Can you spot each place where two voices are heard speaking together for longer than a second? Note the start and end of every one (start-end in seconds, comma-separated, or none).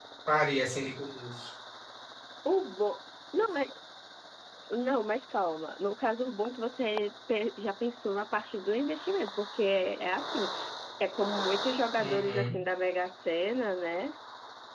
none